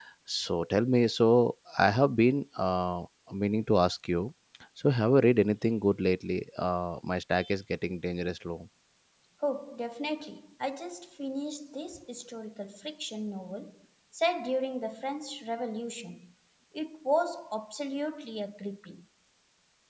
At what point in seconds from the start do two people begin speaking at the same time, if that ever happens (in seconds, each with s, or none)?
none